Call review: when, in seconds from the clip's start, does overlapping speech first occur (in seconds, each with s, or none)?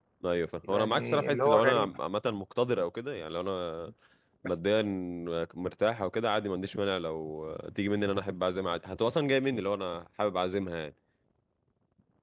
0.6 s